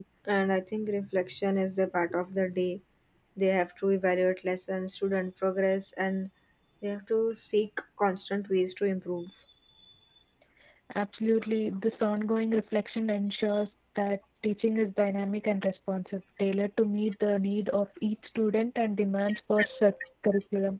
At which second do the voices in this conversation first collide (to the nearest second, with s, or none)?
none